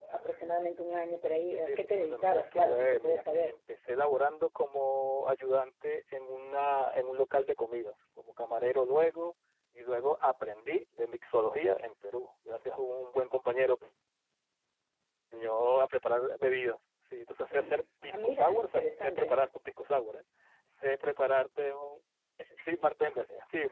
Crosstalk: present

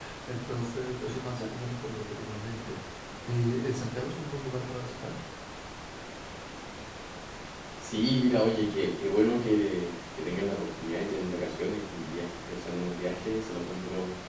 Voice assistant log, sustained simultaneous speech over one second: none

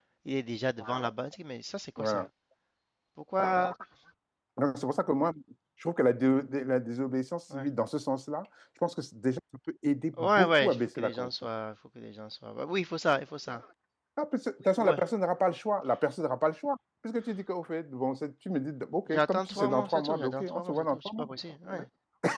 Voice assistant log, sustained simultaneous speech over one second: present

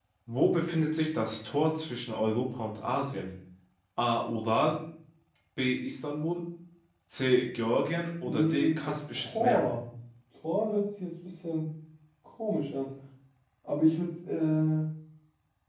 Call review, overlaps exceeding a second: present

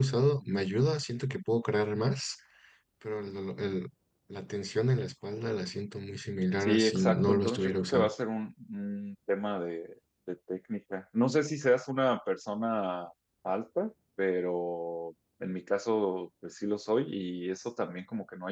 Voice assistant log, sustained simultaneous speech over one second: present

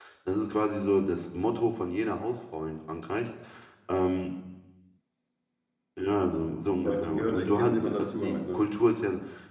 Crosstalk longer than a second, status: present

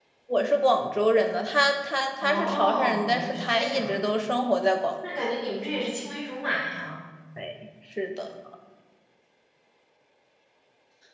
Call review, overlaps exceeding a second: present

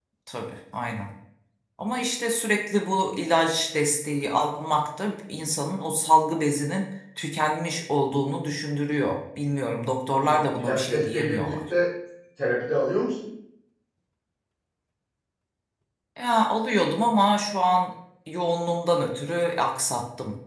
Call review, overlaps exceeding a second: present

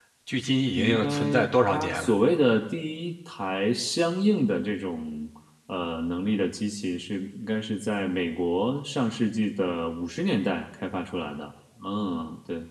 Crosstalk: present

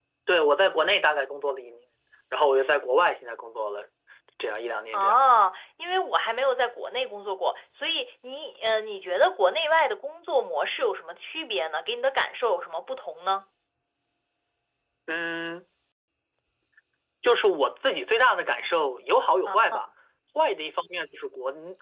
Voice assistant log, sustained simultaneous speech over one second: none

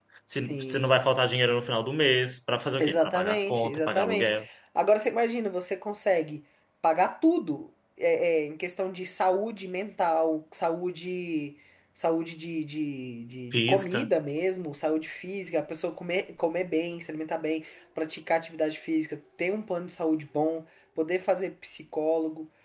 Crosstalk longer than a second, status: present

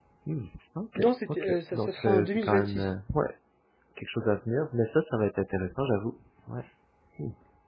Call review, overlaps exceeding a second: present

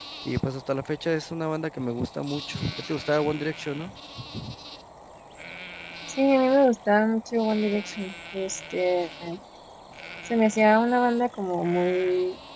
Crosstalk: none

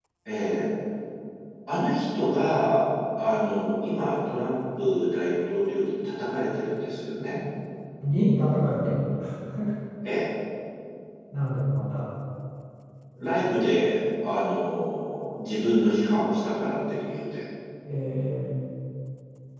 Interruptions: none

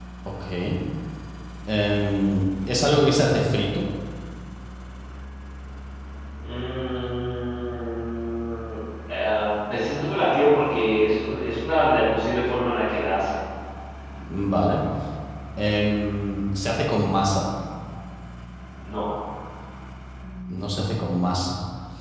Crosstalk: none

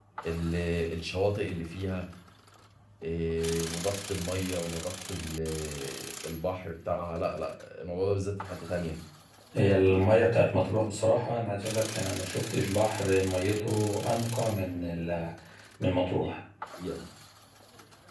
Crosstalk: none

